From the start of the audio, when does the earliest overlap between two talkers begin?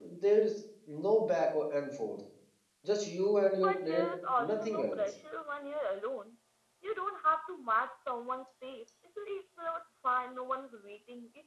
4 s

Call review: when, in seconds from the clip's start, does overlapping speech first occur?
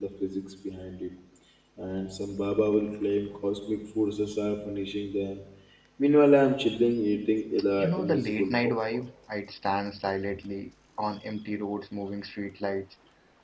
8 s

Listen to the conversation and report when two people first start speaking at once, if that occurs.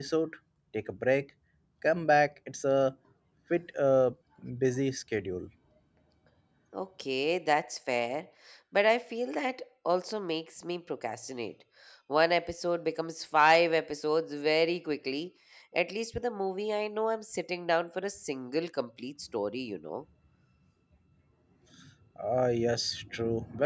none

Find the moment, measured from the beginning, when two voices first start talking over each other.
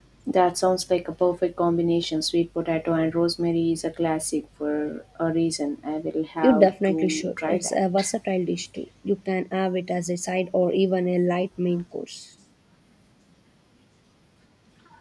6 s

